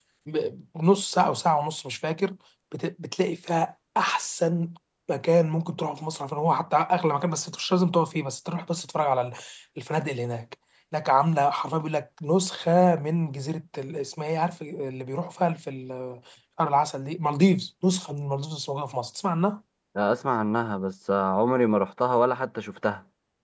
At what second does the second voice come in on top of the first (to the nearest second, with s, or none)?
none